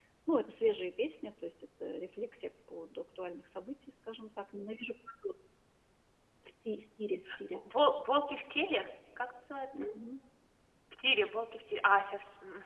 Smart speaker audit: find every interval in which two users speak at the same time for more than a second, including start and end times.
none

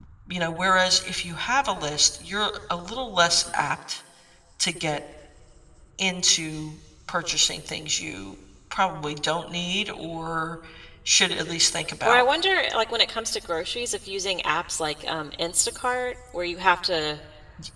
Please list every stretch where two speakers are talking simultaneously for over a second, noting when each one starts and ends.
none

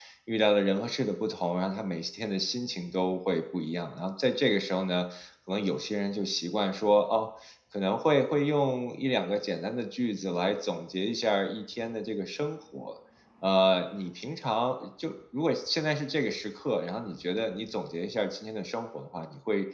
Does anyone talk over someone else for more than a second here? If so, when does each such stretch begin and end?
none

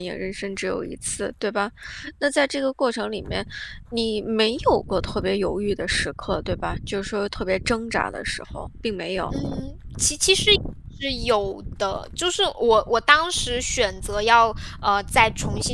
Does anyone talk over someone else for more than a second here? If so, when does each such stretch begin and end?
none

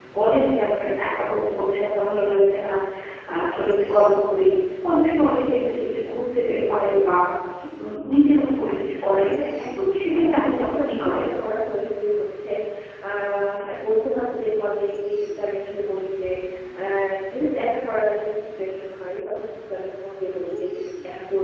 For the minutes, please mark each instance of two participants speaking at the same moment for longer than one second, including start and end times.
9.8-11.3

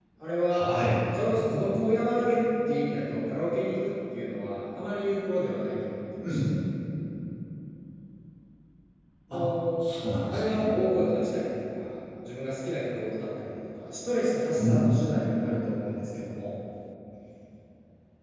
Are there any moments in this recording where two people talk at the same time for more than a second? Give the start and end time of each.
none

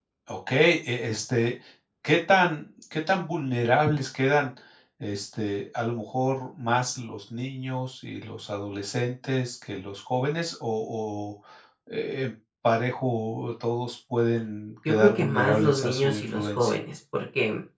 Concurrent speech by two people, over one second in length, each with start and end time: 14.9-16.7

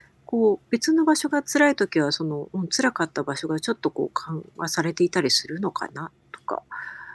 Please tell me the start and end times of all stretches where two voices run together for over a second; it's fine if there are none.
none

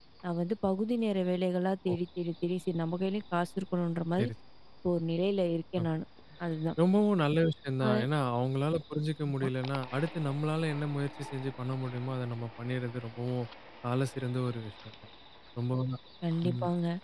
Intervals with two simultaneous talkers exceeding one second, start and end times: none

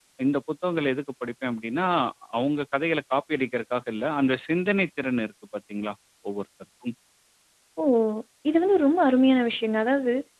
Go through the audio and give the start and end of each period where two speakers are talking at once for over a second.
none

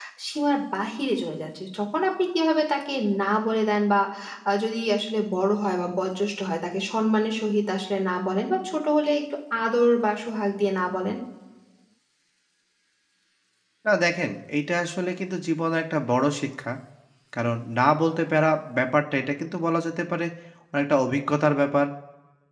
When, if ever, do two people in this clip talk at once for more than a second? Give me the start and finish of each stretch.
none

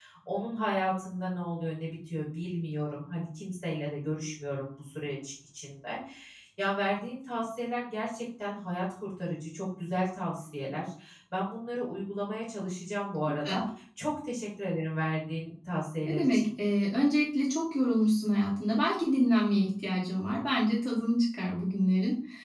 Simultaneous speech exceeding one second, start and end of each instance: none

